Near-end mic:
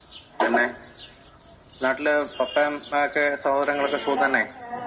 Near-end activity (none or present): present